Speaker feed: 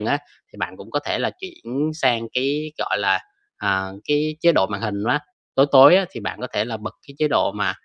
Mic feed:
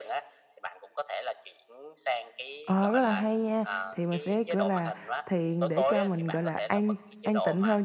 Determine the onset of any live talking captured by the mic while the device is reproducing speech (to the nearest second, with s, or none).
3 s